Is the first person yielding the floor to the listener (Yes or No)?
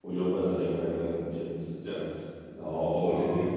No